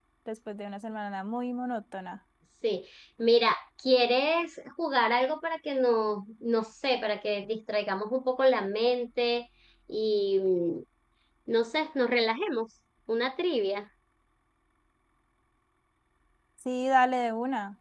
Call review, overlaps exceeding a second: none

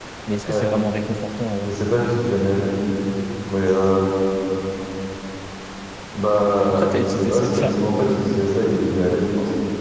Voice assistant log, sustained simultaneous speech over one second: present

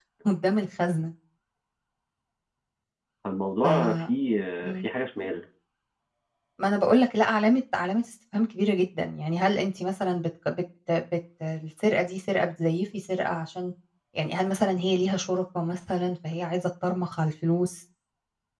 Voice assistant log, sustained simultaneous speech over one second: none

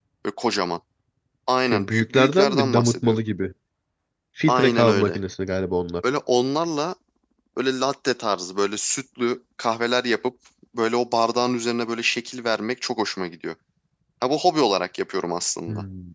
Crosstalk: present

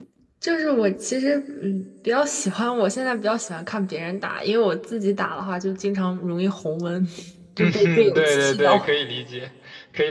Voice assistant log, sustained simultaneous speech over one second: present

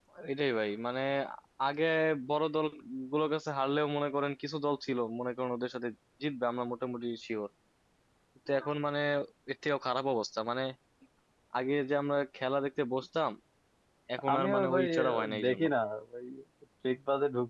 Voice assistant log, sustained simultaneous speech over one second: present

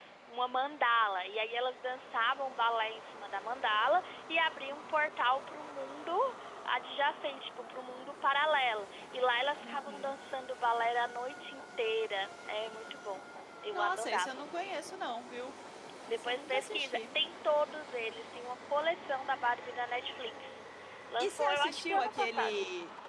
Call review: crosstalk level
present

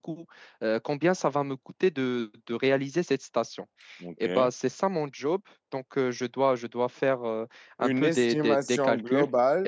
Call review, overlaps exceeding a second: present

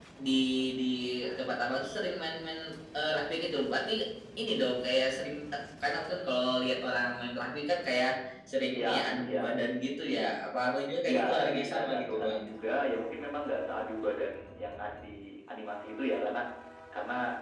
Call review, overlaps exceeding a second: present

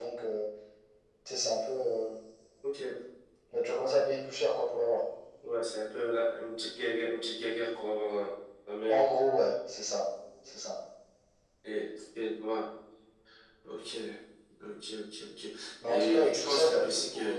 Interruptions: present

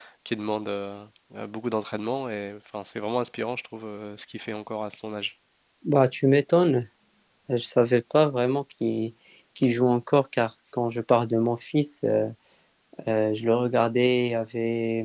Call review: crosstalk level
none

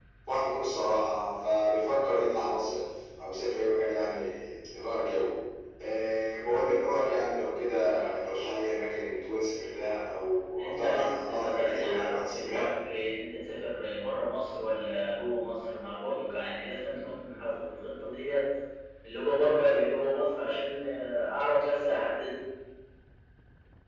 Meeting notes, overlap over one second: present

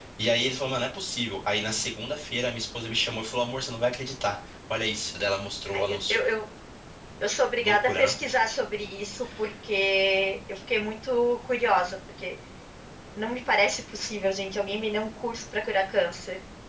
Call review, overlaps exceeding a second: none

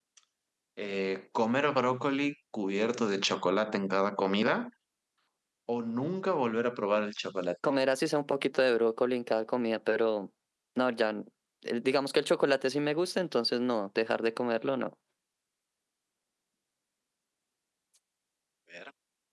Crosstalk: none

